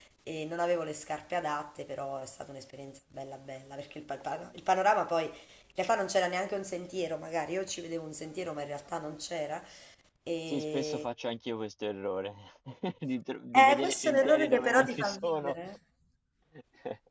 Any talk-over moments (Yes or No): Yes